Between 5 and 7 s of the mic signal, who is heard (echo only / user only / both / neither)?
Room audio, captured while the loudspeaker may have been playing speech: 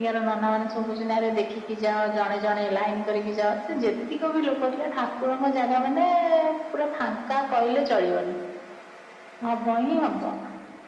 echo only